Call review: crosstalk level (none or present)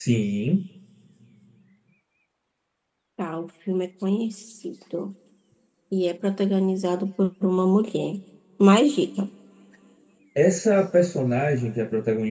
none